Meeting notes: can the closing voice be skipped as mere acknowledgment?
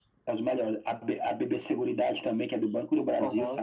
No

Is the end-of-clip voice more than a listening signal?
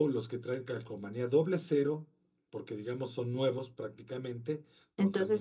Yes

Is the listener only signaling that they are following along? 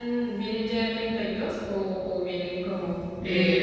No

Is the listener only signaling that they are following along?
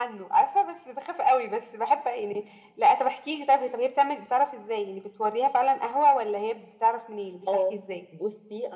No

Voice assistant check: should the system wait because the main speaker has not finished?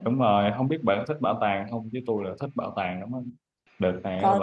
Yes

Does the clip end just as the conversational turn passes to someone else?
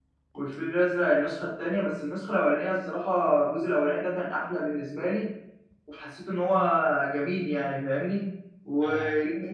No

